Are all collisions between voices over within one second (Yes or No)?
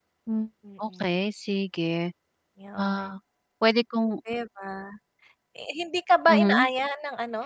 Yes